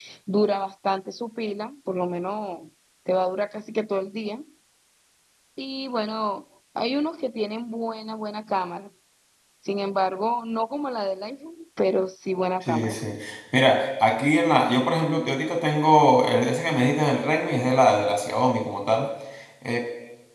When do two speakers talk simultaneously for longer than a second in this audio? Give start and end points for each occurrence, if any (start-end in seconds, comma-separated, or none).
none